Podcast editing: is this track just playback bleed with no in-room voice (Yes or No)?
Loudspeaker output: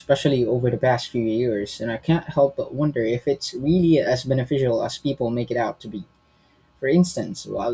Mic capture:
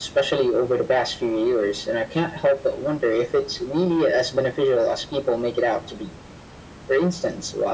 Yes